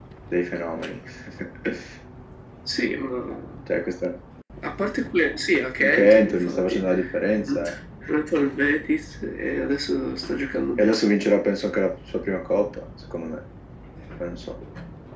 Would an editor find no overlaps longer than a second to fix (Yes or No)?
No